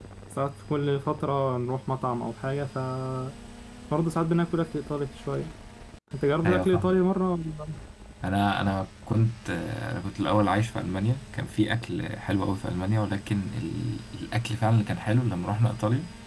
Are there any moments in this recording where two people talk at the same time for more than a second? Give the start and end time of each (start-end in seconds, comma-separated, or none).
none